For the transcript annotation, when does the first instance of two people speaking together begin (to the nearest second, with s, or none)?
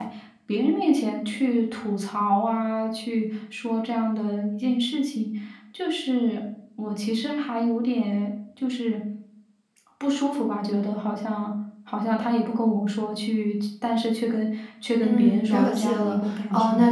15 s